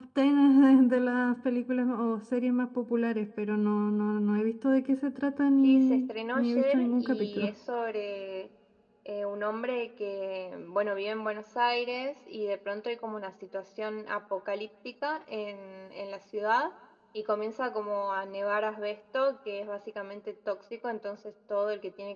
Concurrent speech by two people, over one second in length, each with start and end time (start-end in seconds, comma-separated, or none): 5.6-7.5